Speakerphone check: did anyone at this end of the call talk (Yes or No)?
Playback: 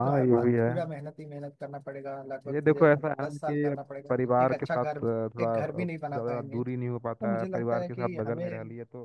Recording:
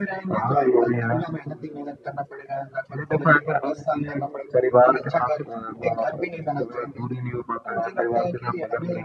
No